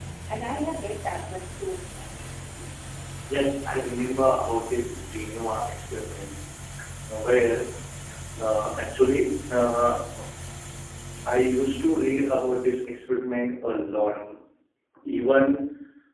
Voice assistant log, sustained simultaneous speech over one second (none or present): none